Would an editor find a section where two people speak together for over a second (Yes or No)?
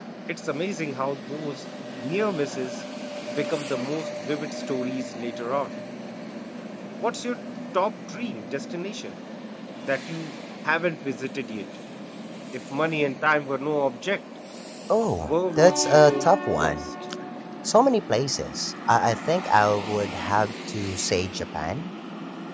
Yes